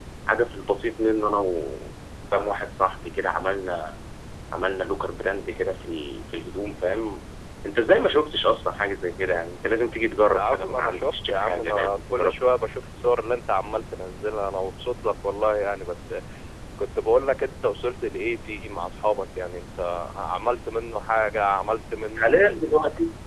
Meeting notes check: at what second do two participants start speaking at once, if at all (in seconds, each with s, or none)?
10.3 s